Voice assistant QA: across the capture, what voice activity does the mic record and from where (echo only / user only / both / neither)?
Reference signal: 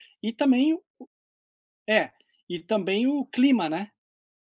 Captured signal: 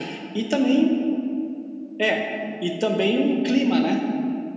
echo only